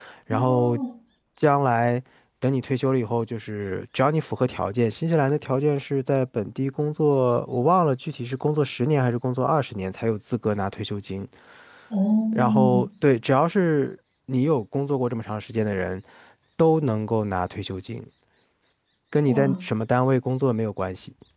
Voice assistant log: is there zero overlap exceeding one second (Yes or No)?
Yes